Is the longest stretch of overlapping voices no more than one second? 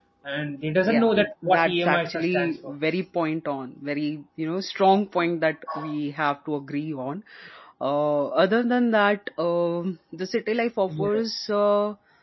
No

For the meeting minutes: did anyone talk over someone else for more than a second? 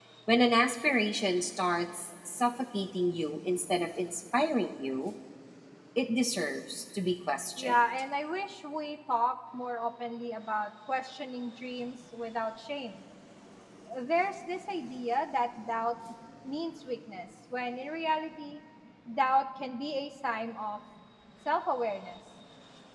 No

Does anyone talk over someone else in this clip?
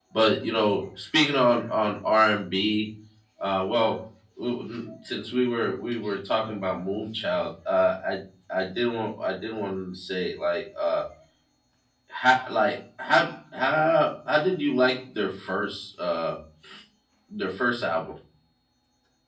No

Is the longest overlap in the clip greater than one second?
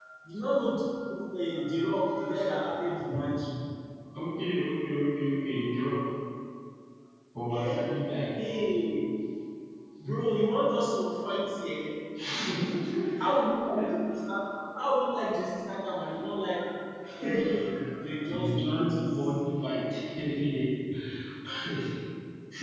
Yes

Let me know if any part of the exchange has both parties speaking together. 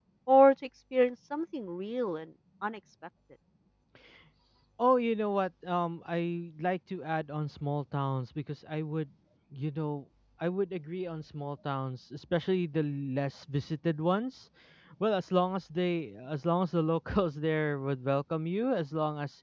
No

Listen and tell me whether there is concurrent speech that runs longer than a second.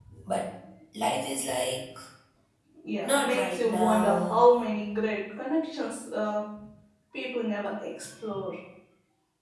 Yes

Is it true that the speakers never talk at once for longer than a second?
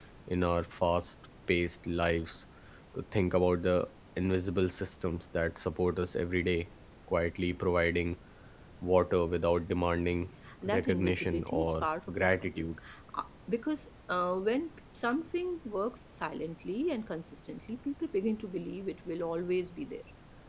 No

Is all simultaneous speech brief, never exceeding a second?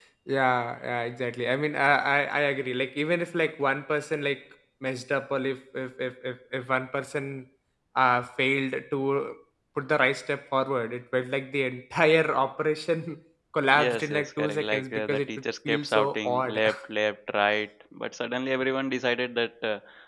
No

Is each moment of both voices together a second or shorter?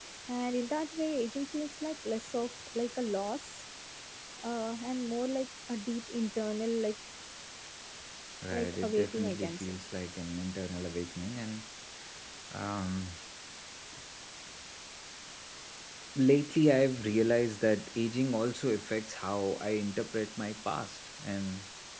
No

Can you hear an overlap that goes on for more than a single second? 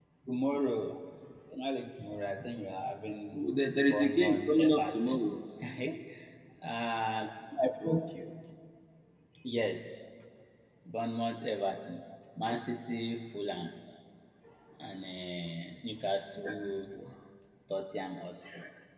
Yes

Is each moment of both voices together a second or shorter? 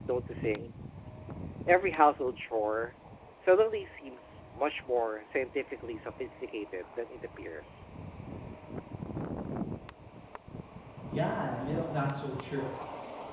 Yes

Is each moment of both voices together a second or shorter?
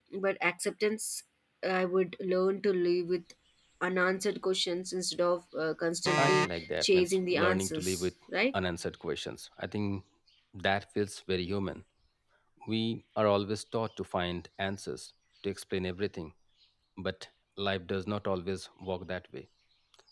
No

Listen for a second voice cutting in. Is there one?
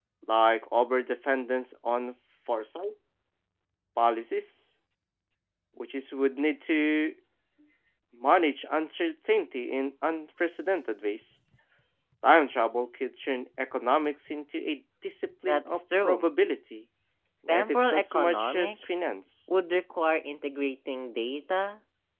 Yes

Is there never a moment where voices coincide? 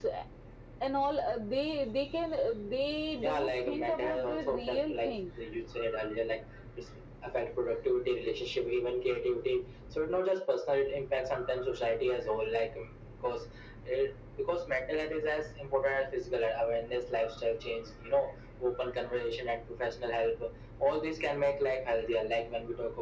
No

